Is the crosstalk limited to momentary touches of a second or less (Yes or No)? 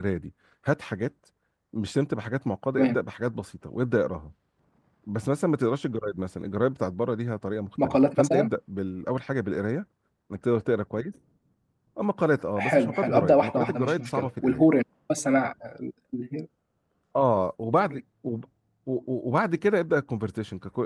No